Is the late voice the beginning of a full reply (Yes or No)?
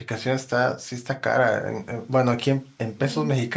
No